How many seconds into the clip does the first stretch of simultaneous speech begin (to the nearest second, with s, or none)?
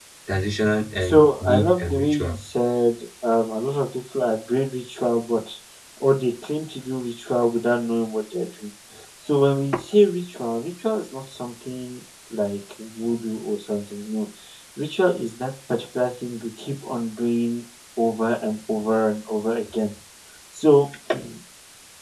1 s